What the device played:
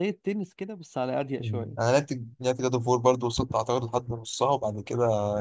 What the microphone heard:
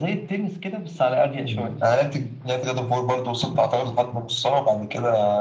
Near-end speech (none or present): none